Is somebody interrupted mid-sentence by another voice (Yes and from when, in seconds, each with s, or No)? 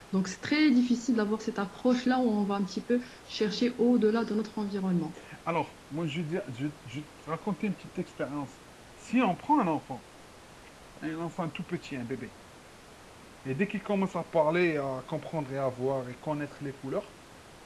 No